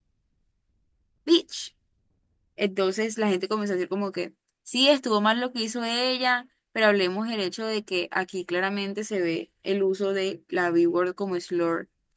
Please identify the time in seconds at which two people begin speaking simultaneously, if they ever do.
none

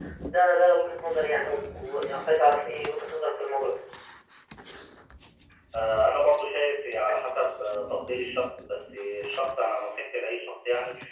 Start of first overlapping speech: none

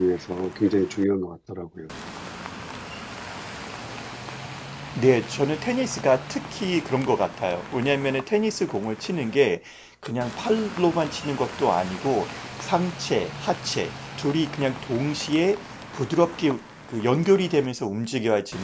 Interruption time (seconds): none

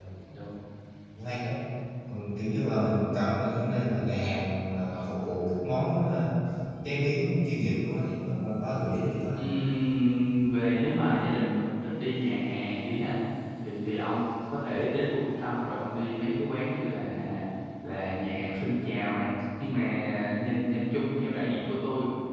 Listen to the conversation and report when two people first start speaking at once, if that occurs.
none

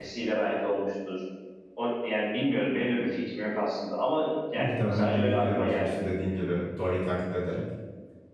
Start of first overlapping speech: 4.6 s

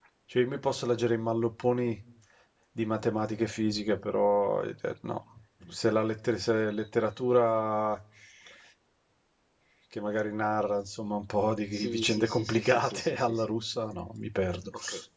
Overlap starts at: 11.7 s

